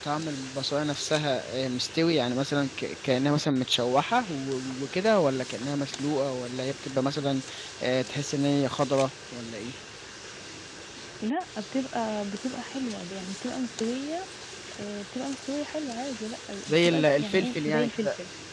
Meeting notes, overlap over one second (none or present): present